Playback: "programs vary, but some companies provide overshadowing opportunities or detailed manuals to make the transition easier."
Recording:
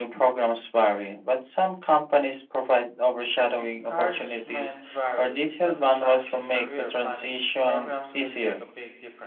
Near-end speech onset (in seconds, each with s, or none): 3.6 s